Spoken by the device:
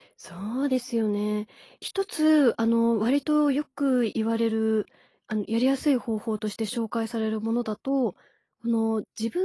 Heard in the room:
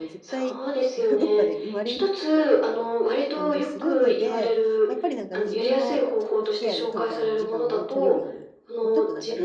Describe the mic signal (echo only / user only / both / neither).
both